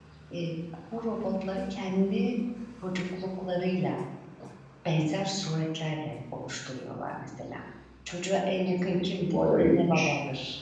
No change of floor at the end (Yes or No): Yes